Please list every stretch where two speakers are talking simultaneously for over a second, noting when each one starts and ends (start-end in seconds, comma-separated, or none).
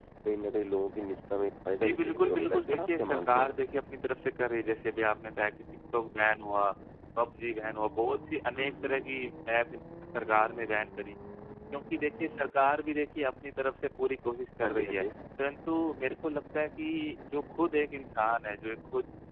1.8-3.5